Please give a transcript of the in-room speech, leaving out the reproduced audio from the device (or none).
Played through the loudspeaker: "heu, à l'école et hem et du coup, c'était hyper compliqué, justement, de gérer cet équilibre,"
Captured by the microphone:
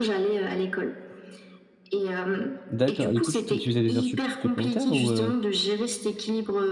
D'accord, du coup, tu tu faisais des heures supp supplémentaires ou, heu,